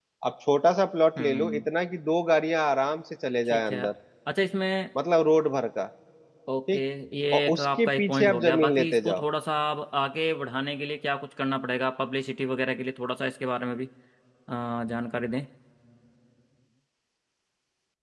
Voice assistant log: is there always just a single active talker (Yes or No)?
No